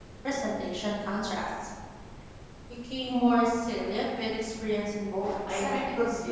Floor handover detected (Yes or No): Yes